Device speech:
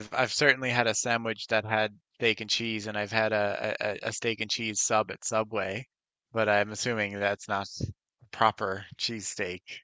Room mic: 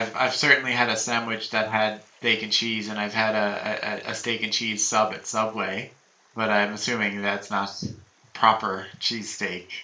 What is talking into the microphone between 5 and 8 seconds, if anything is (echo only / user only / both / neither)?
echo only